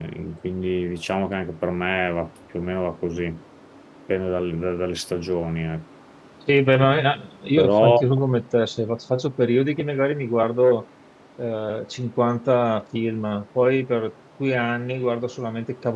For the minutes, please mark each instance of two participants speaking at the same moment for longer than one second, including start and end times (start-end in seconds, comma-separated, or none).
none